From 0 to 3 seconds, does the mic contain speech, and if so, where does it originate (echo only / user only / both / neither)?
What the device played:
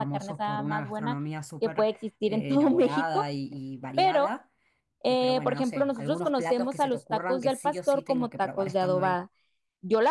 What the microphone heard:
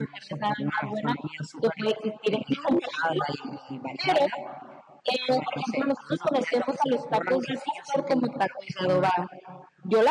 echo only